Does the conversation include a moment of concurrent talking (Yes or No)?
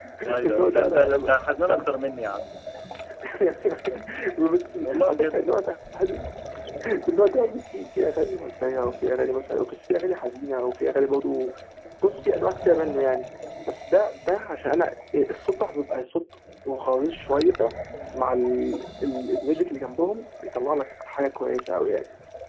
Yes